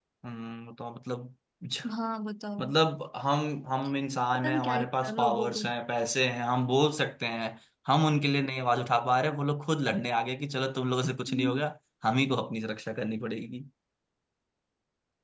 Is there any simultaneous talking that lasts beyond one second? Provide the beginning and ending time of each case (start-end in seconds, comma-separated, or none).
4.4-5.6